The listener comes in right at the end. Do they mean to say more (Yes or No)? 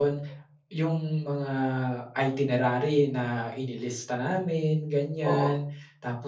No